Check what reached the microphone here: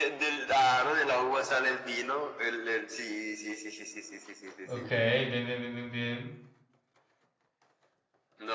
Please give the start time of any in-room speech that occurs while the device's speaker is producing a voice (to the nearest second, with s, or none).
5 s